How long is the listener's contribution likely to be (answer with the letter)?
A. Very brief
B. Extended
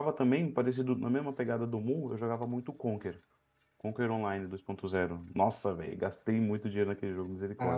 B